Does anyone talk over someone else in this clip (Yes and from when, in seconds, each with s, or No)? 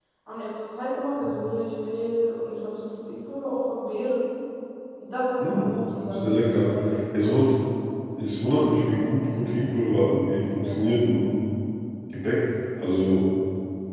Yes, from 5.4 s